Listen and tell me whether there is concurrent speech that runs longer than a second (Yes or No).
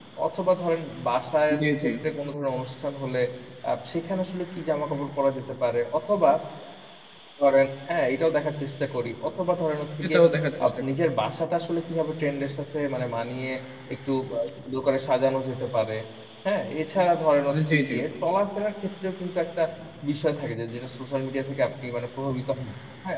No